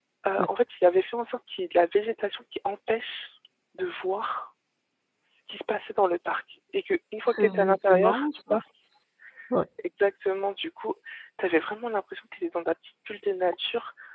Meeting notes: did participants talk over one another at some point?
Yes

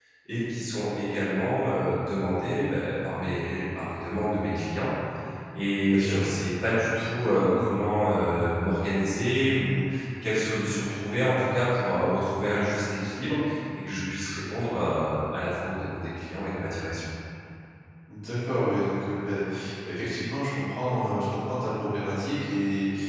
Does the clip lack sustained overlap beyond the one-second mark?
Yes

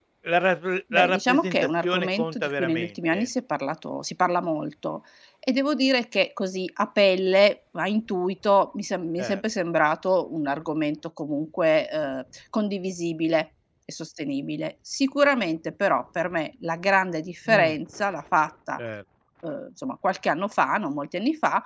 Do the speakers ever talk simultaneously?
Yes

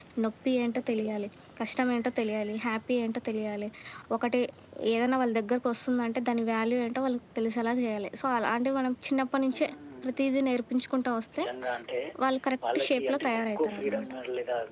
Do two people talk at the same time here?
Yes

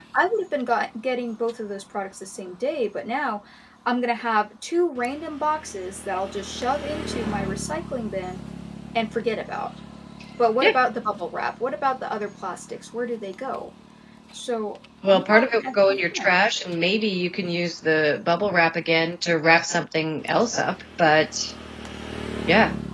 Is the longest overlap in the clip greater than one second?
Yes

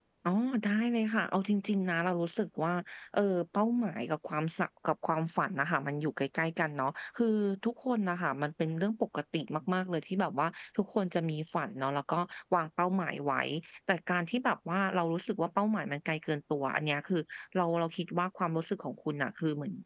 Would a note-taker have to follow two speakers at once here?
No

